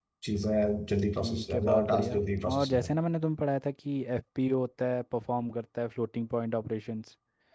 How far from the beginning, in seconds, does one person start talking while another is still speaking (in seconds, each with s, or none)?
1.2 s